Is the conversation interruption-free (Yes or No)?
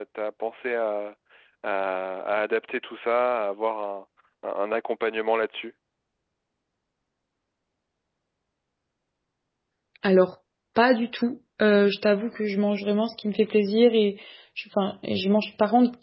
Yes